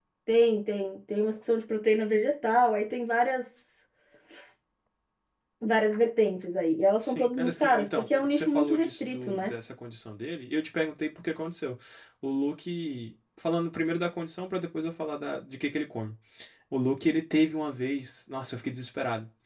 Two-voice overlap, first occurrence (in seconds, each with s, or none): 7.0 s